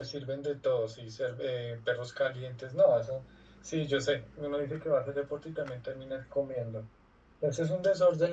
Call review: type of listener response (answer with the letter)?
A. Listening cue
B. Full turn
A